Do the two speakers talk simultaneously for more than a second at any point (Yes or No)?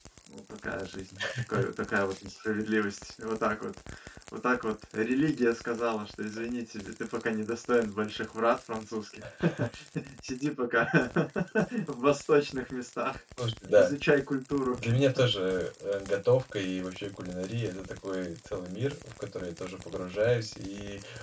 No